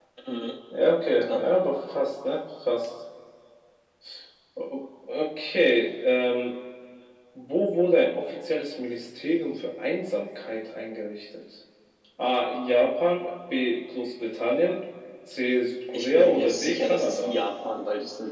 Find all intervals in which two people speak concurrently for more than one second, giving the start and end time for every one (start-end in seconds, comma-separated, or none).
15.9-17.3